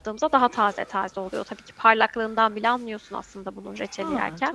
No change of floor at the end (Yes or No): No